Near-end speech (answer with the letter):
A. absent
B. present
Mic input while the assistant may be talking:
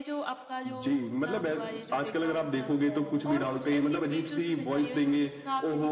B